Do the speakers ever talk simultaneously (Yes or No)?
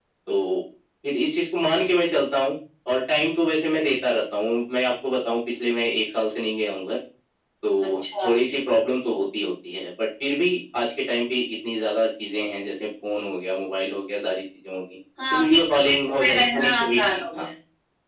Yes